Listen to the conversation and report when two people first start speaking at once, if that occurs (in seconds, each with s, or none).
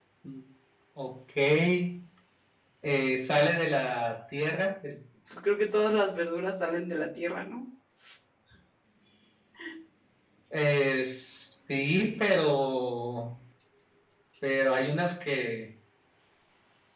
none